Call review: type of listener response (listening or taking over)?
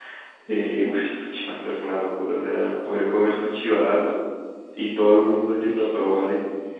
listening